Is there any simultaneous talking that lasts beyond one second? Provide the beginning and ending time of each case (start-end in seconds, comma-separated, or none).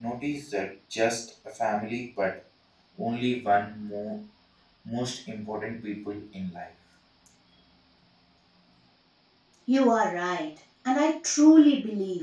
none